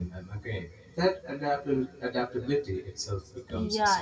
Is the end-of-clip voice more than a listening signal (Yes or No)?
Yes